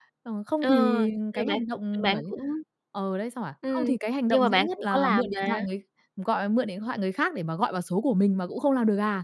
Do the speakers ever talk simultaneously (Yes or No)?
Yes